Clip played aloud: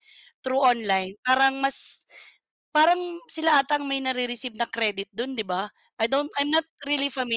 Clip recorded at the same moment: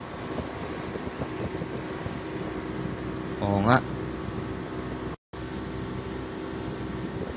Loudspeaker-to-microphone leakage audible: No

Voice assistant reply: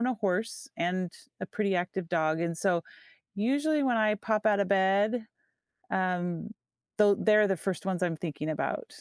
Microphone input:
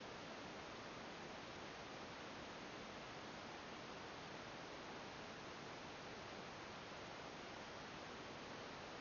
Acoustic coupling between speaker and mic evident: No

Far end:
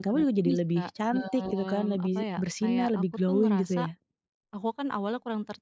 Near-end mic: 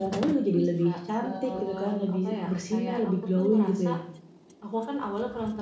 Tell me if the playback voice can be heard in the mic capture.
Yes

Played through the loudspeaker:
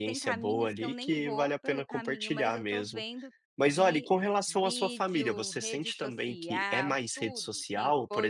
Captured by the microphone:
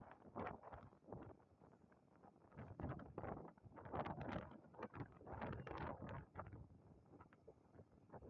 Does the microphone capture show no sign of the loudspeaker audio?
Yes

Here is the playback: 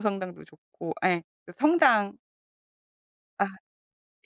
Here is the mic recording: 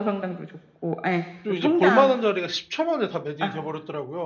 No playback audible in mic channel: No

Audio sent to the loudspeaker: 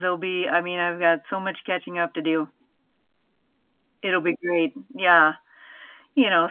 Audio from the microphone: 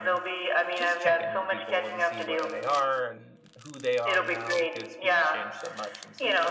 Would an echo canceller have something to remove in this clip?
Yes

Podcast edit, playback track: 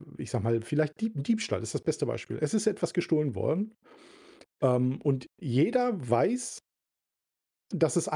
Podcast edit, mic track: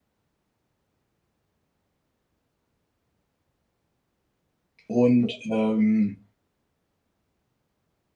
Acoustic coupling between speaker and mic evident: No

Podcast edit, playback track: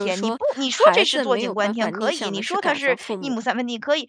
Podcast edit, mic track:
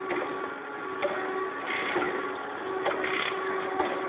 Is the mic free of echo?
Yes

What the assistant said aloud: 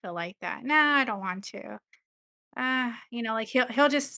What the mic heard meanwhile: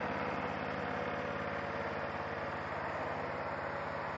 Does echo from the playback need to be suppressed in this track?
No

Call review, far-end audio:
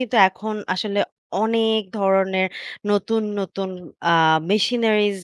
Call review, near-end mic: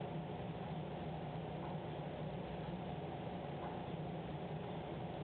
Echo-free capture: Yes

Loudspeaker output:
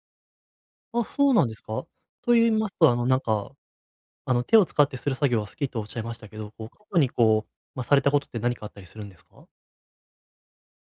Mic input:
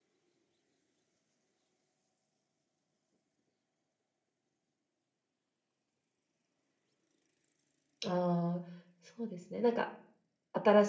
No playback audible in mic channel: Yes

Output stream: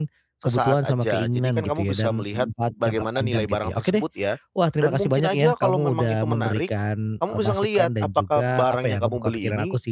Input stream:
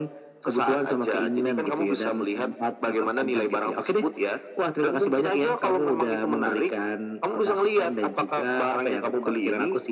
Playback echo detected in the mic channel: Yes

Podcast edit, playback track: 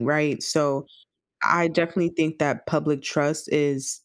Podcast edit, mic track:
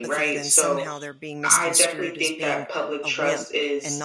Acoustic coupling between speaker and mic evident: Yes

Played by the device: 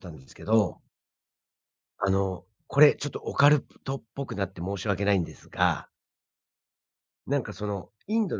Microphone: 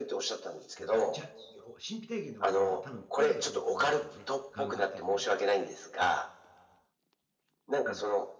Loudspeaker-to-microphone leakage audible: Yes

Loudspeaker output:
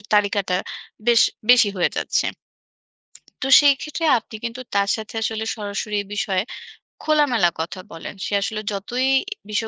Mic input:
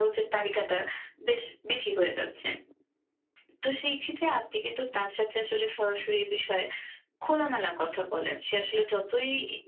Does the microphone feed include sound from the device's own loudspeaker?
Yes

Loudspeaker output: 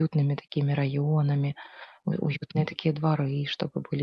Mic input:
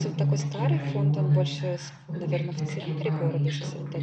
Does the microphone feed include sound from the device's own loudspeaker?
Yes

